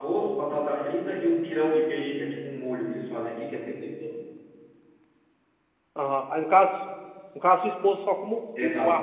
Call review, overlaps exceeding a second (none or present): none